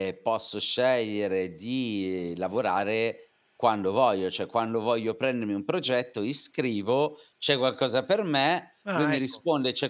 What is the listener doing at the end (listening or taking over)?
listening